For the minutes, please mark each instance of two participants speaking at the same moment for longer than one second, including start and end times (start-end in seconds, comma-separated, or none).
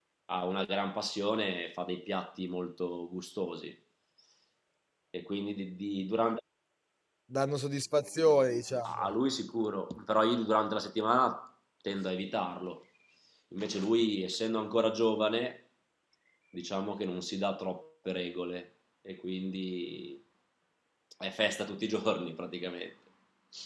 none